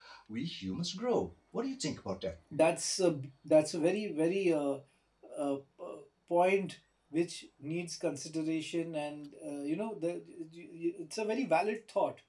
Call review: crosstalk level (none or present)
none